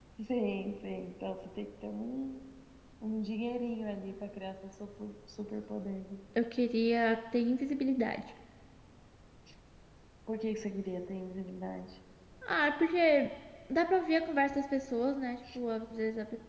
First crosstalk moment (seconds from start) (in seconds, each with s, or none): none